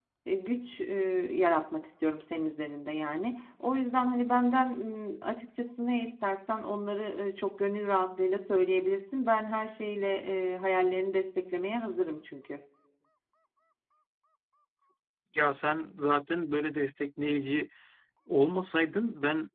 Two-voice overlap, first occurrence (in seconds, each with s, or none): none